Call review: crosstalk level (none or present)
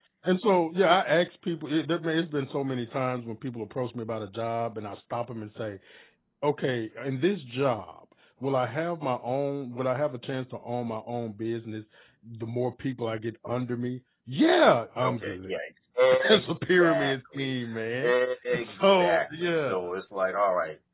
present